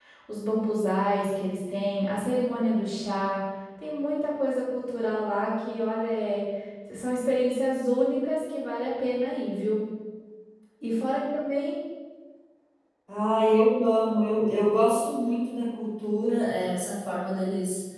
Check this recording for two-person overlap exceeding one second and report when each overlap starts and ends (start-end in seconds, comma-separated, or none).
none